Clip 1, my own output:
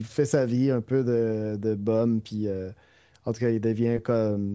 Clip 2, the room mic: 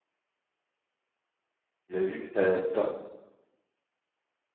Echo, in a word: none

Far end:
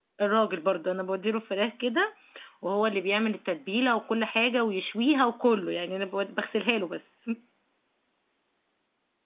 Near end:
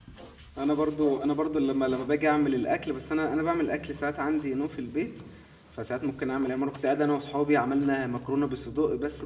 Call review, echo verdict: none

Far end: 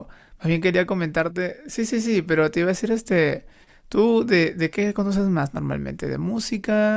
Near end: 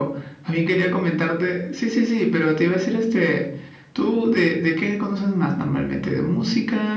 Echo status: present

